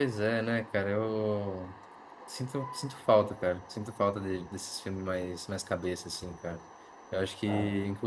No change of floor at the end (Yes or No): Yes